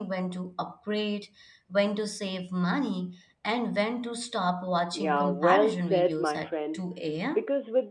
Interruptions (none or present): present